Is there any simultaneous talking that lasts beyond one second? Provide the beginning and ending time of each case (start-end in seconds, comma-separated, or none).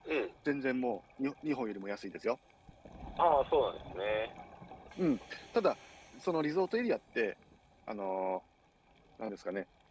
none